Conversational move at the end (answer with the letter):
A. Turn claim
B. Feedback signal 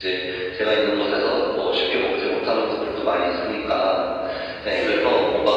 B